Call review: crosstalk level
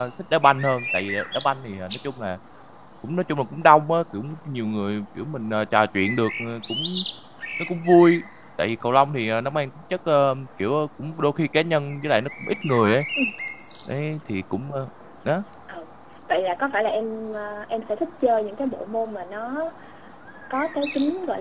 none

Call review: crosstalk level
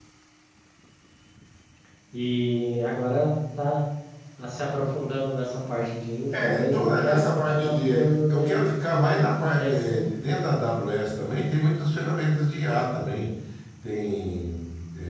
present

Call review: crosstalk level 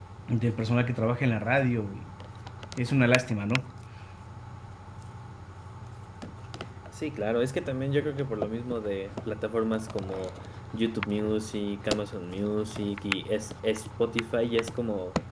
none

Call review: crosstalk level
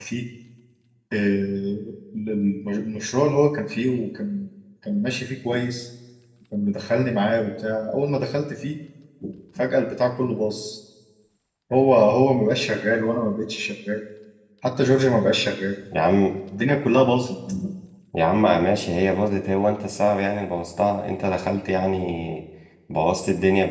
none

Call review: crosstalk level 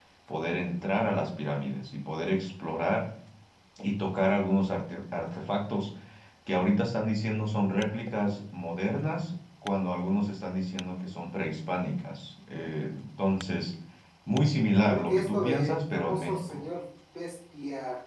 present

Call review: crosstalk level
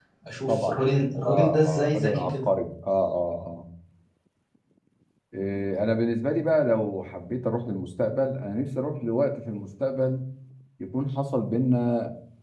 present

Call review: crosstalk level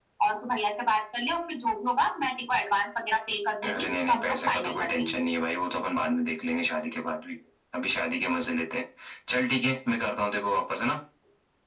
present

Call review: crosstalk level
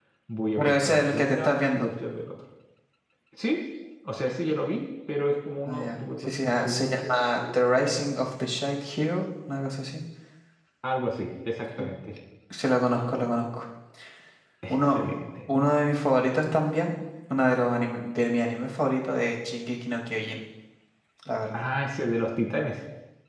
present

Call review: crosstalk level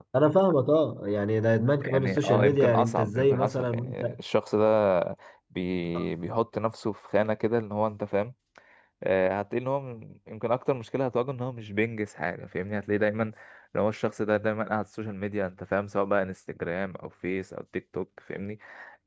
present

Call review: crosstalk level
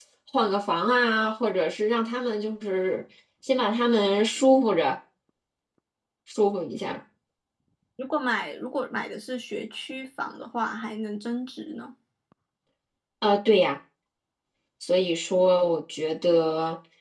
none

